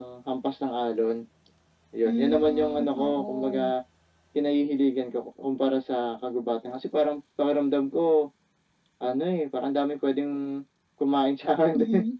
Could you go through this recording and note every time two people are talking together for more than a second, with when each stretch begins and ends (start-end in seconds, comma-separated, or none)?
2.0-3.7